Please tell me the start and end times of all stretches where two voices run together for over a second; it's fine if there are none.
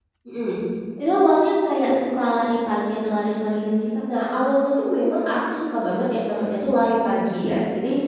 none

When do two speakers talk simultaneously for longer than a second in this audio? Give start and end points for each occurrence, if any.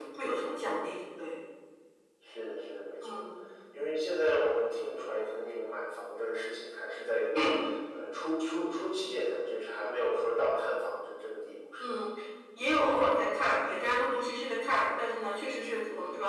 none

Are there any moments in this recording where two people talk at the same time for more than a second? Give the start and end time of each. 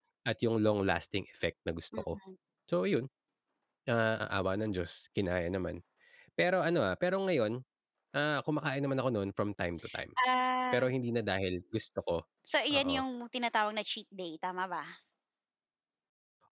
none

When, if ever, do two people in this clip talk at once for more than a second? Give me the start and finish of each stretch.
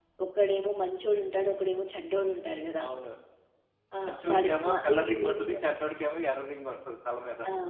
4.0-5.6

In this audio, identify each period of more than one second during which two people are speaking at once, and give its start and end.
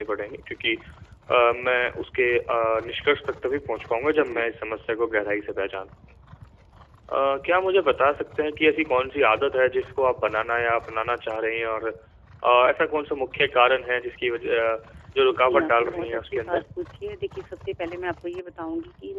15.3-16.6

